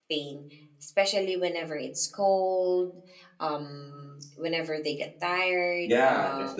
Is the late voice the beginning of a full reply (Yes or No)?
Yes